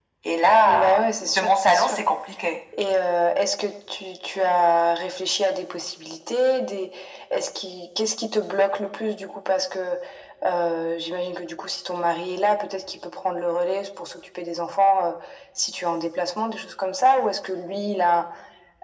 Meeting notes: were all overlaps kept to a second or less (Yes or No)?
No